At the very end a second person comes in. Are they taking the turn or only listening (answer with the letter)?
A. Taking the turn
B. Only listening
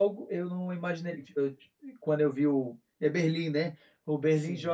B